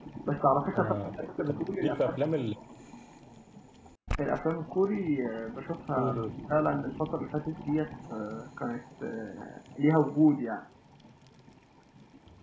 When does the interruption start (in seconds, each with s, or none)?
0.8 s